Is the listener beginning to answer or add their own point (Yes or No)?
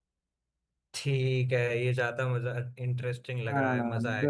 Yes